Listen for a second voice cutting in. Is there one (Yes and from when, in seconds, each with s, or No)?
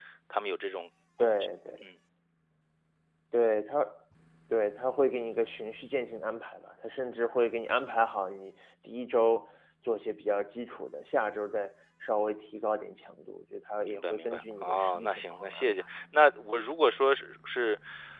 Yes, from 13.8 s